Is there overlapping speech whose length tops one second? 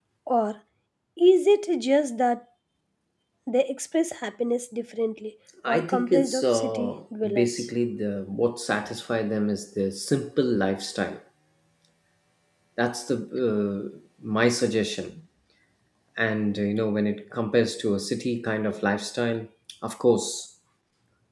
Yes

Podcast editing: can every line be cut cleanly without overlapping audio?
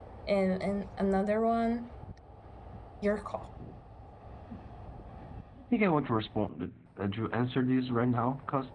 Yes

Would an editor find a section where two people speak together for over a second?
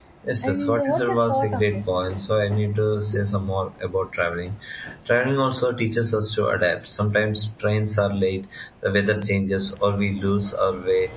Yes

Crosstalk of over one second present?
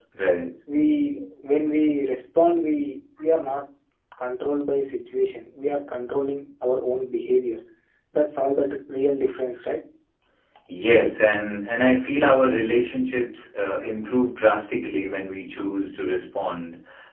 No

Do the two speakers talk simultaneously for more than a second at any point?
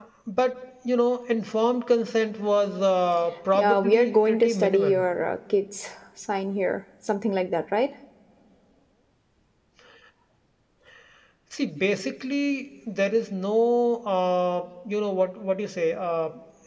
Yes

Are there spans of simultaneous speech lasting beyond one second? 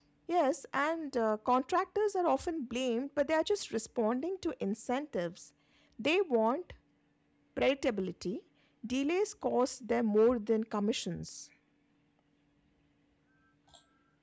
No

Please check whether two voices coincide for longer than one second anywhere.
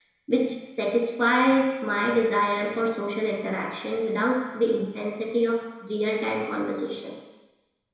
No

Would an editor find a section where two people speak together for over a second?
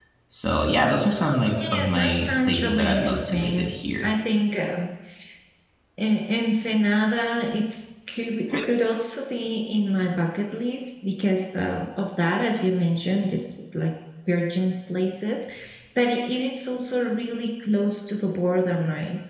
Yes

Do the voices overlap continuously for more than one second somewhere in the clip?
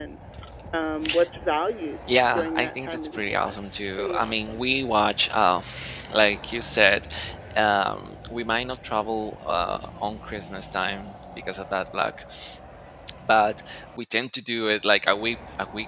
Yes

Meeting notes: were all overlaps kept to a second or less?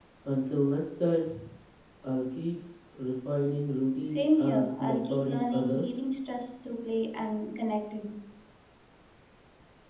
No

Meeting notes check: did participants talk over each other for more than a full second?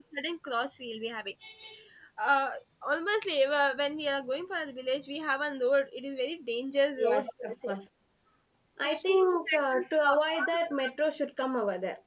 Yes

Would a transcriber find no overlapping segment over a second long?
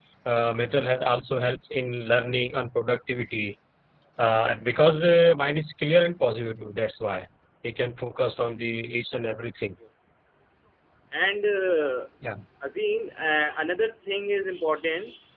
Yes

